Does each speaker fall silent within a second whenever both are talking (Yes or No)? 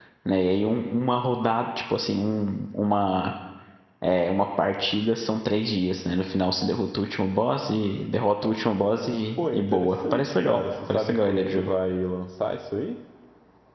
No